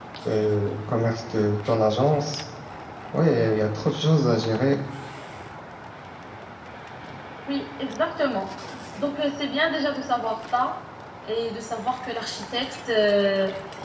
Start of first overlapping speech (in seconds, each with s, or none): none